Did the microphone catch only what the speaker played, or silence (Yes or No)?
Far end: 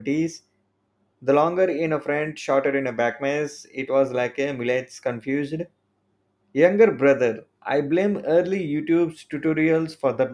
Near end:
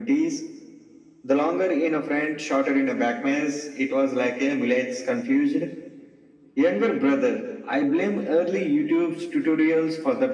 Yes